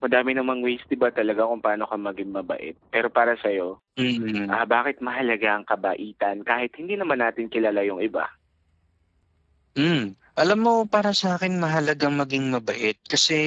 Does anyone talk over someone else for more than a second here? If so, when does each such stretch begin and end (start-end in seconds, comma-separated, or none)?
none